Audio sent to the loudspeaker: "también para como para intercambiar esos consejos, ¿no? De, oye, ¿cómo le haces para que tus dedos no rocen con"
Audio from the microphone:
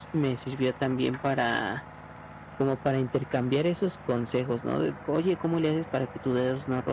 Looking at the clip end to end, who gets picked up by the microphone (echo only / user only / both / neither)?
echo only